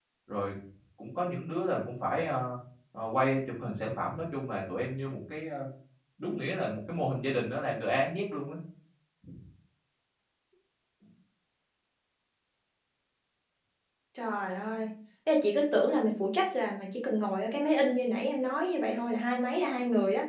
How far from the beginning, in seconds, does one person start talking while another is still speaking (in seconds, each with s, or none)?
none